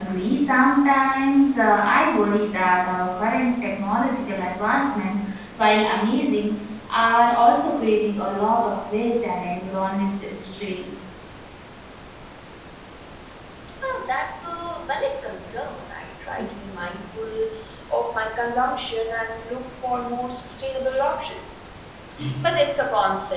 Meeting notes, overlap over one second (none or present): none